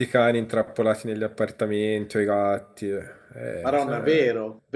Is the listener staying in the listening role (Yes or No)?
No